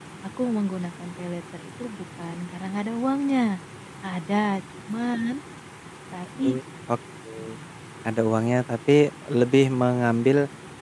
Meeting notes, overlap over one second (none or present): none